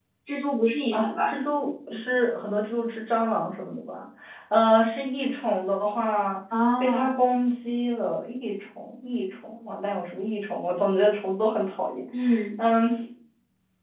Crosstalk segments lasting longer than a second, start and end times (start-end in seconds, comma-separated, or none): none